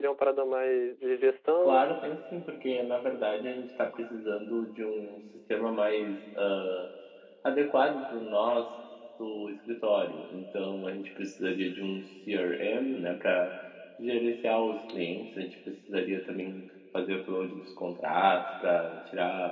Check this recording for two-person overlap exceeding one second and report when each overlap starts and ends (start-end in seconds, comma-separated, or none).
none